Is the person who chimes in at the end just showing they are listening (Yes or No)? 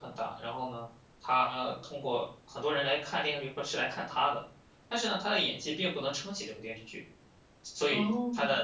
Yes